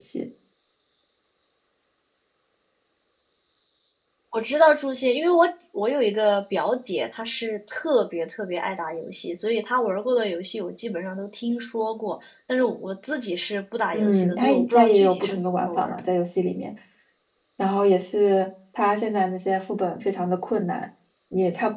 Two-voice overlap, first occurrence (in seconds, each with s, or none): 13.9 s